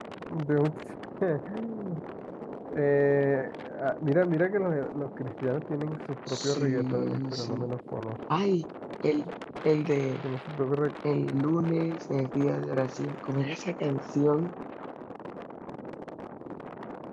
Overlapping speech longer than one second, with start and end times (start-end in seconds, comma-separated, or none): 6.3-7.7